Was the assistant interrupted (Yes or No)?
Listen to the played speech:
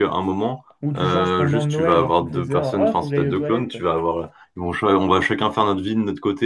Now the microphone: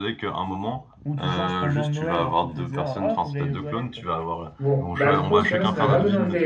Yes